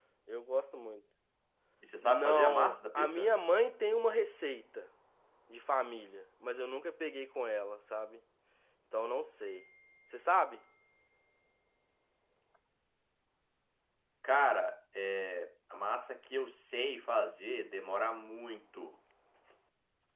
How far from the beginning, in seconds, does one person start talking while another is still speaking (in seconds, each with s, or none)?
2.0 s